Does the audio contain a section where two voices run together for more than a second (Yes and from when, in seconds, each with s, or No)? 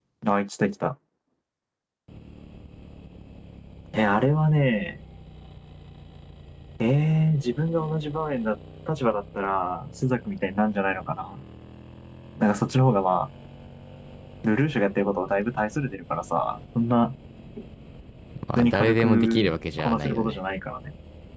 Yes, from 18.6 s